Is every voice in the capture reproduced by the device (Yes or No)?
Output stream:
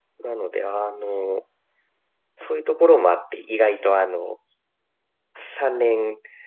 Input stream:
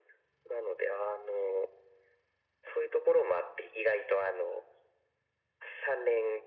Yes